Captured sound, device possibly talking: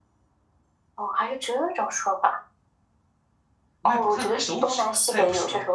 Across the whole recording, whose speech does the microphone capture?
both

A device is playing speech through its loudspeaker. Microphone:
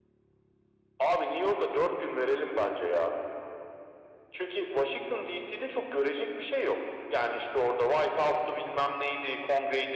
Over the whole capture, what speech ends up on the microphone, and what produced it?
echo only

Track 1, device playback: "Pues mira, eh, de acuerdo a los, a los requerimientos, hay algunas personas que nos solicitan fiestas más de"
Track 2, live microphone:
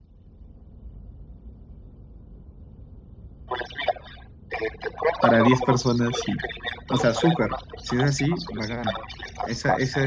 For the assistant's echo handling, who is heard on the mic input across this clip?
both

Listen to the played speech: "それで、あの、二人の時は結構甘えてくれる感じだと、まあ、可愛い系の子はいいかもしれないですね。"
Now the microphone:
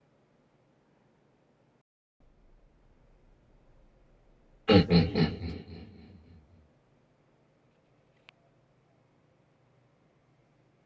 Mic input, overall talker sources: user only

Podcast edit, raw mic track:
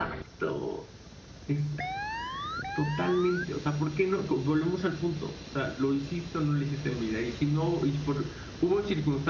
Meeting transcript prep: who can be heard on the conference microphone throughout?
echo only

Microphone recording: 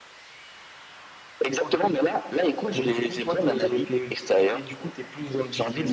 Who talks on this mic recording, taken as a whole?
echo only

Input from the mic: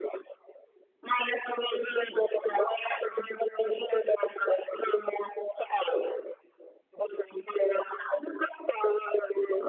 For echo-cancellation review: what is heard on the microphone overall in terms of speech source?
echo only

